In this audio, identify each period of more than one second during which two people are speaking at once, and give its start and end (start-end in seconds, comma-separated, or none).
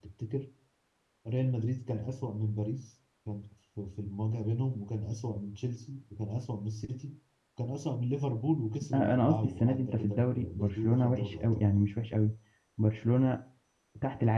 8.9-11.7